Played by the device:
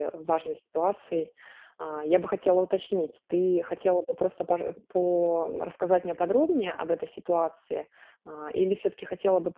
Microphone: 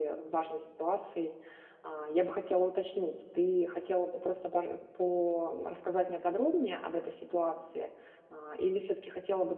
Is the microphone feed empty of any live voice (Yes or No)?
Yes